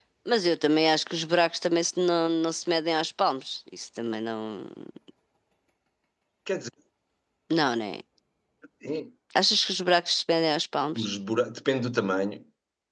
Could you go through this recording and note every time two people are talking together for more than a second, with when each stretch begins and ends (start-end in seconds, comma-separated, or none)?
none